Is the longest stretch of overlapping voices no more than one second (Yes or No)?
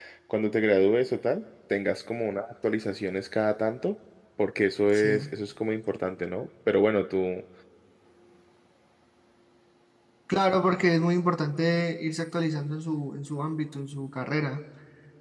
Yes